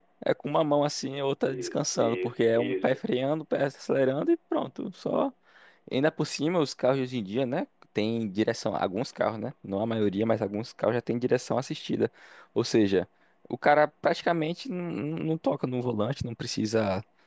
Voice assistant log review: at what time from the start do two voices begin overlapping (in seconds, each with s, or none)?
1.4 s